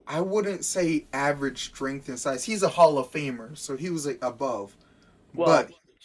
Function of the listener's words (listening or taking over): listening